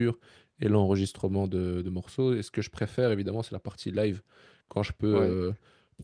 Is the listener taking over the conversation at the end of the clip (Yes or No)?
No